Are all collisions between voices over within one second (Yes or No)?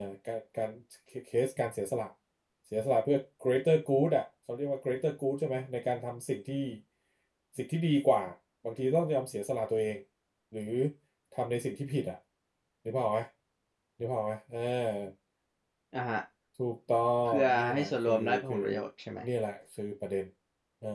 No